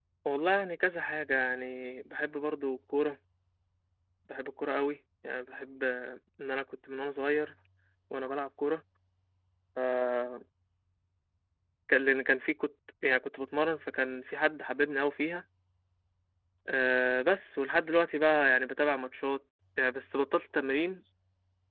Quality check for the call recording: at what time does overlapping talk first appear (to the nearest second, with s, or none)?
none